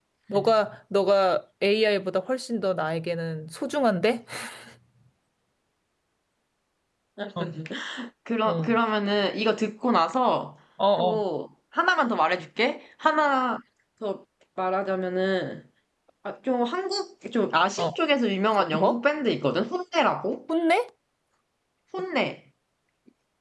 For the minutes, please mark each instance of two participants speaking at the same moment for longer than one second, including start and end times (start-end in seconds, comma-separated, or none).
none